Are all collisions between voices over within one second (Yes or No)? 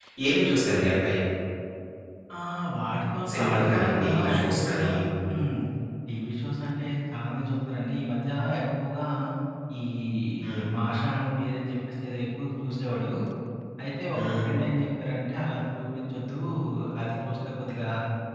No